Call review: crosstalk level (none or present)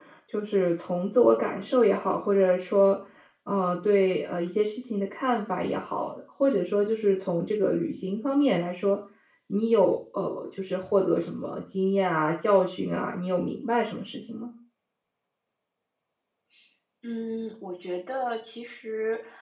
none